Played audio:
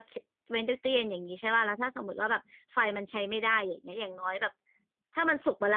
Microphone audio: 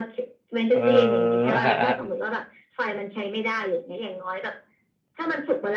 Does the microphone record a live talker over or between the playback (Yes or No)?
Yes